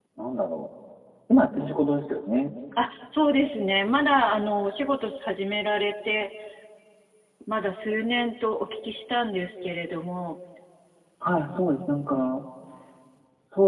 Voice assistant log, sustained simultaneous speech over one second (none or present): none